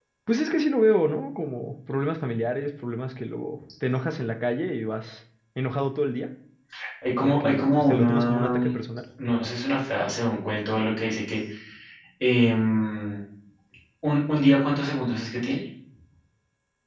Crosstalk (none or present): present